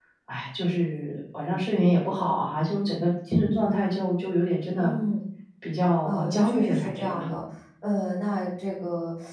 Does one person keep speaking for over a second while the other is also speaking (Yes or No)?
Yes